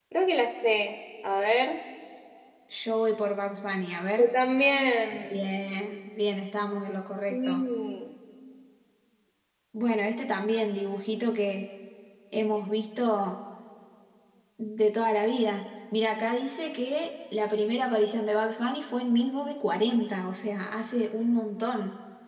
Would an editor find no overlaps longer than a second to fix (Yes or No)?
Yes